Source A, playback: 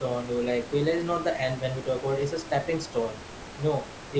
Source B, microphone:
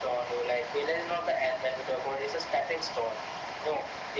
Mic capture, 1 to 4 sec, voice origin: echo only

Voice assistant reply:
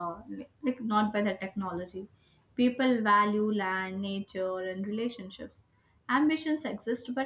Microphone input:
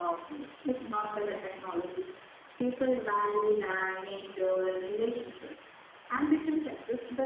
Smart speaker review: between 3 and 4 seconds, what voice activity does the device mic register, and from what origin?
echo only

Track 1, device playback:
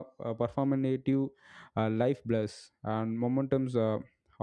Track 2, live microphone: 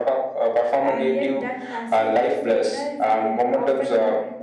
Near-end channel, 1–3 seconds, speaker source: both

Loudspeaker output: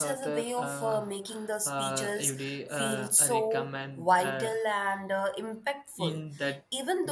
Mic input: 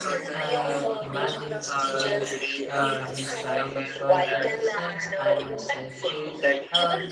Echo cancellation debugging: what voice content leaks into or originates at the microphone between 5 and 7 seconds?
both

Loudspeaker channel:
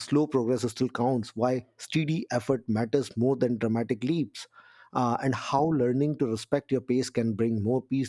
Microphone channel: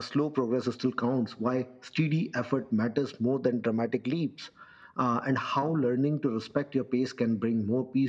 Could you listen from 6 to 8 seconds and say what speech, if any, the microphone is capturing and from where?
echo only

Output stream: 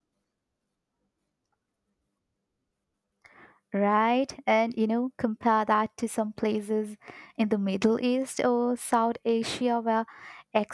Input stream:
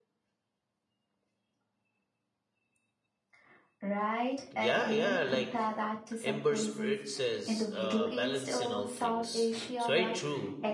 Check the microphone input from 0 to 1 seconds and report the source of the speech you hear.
neither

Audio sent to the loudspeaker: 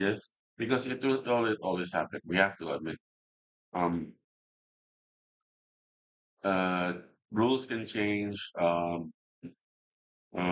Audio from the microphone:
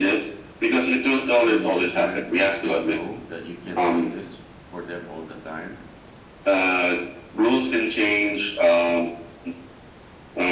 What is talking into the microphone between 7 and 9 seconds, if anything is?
echo only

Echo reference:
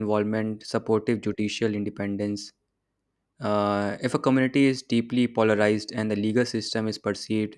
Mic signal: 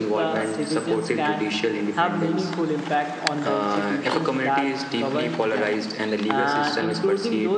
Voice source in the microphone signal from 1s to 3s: both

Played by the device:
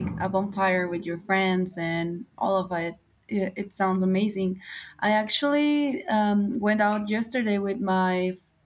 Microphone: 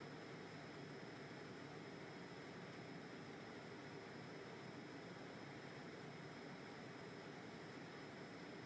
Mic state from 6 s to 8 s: neither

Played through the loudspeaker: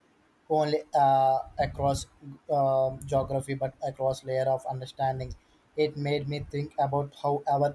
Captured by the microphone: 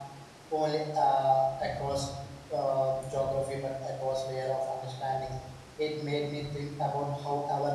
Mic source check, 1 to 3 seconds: echo only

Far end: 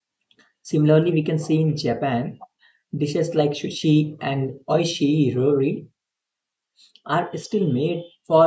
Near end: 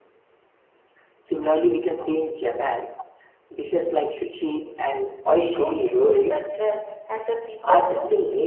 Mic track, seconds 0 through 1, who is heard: neither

